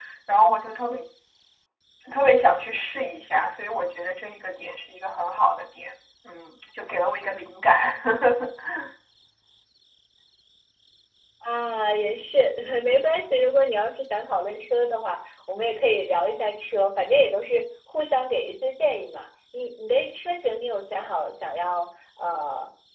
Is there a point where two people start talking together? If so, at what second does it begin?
none

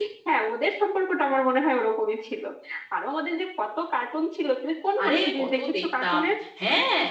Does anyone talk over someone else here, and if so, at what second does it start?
5.0 s

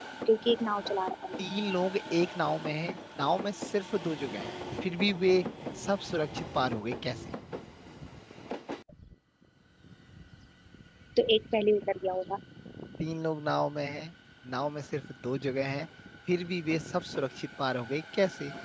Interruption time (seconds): none

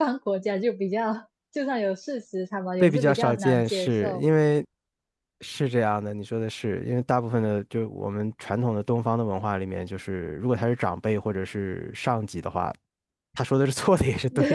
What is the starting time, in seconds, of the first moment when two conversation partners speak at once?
2.8 s

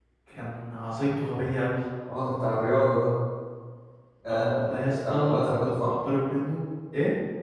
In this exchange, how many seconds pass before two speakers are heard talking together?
4.3 s

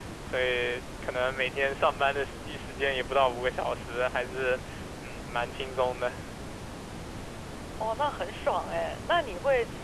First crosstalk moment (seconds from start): none

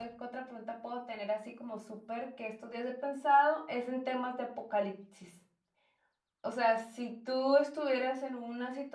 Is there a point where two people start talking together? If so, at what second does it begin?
none

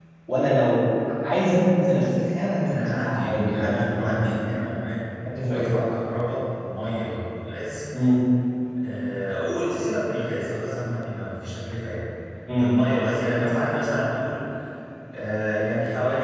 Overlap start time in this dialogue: 2.6 s

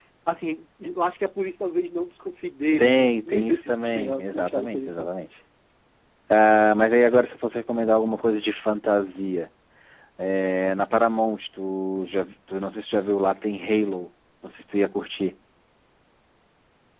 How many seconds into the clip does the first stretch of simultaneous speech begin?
2.8 s

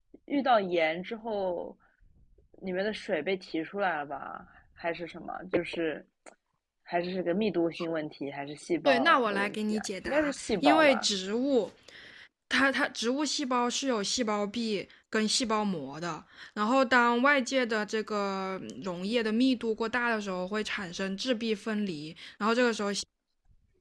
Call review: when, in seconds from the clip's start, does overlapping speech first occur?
8.8 s

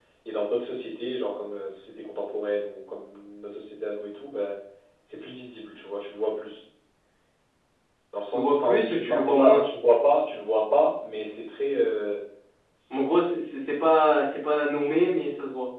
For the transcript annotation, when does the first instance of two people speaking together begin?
8.3 s

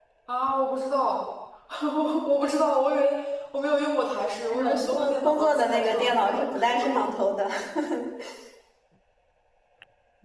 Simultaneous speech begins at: 4.5 s

